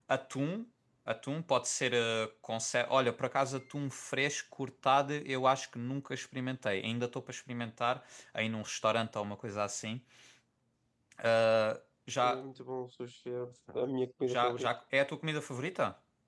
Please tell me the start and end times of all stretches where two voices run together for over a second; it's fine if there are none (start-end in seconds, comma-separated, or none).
none